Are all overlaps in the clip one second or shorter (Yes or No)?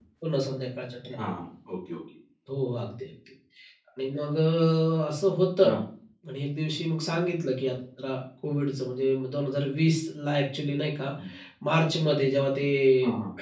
Yes